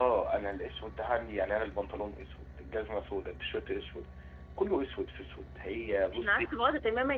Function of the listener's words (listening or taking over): taking over